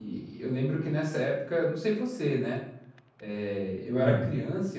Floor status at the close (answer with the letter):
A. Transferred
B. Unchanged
B